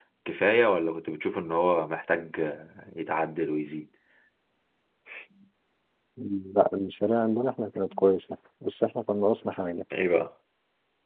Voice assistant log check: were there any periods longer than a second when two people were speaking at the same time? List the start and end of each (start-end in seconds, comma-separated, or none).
none